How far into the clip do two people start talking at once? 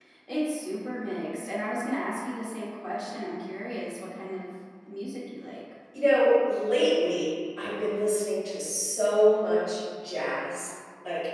none

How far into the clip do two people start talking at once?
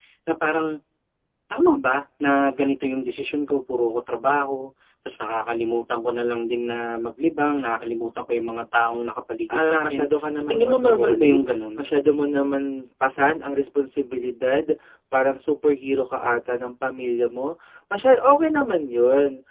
9 s

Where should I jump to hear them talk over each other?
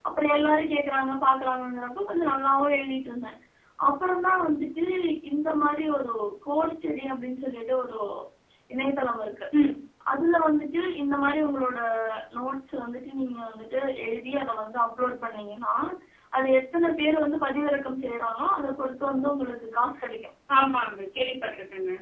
none

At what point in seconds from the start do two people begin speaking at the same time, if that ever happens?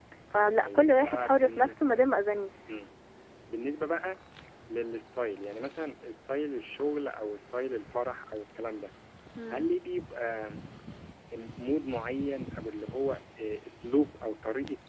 1 s

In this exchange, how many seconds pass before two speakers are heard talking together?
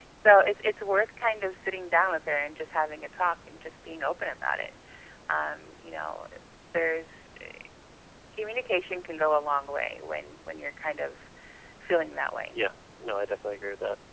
none

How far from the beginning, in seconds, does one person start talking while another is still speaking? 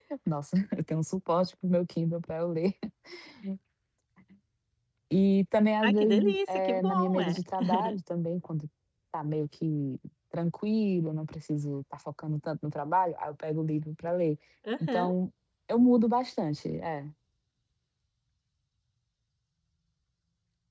6 s

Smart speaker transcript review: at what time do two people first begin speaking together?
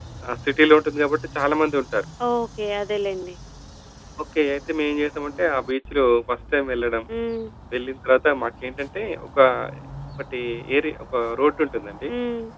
none

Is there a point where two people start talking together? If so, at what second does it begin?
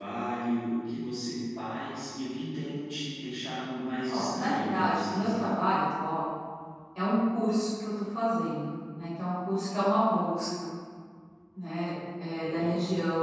4 s

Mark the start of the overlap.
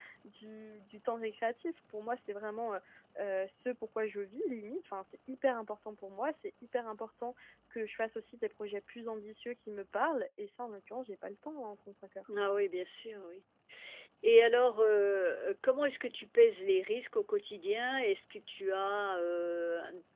none

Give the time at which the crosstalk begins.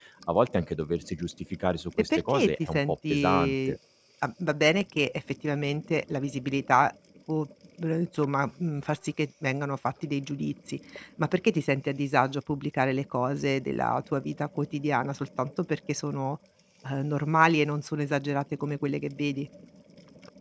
2 s

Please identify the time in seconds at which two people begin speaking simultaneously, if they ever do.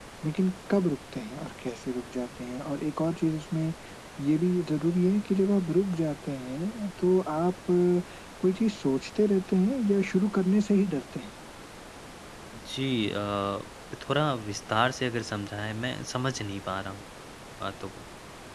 none

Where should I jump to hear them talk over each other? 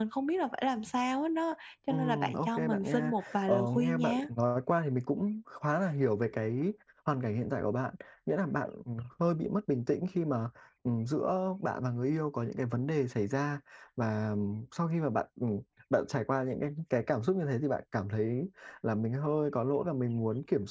2 s

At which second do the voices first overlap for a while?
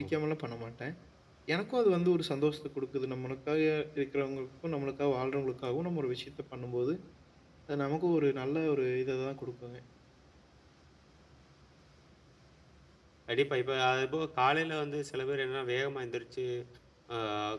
none

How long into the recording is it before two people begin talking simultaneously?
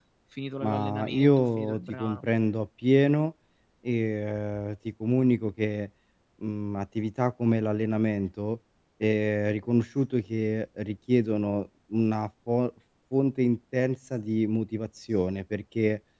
1 s

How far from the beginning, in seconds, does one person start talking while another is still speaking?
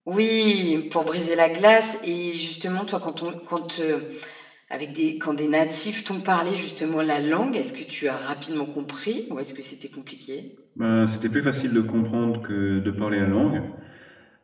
none

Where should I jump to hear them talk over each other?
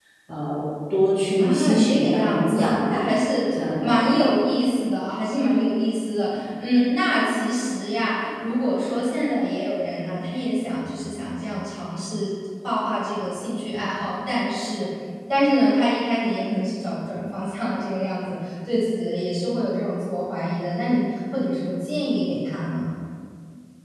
1 s

